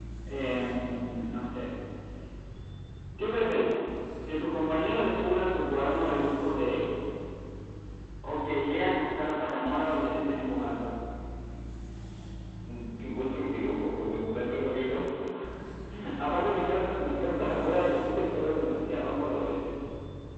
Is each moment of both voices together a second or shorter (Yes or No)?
Yes